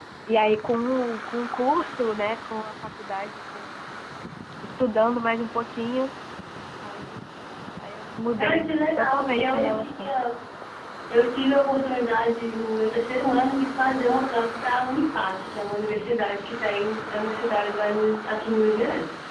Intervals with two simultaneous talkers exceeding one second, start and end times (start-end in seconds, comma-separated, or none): 8.4-10.1